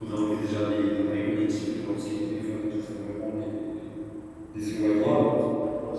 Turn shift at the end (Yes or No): Yes